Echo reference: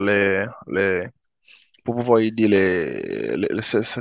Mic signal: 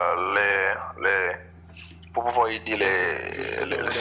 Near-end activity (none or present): present